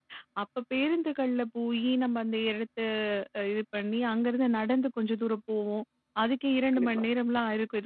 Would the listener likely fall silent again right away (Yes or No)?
Yes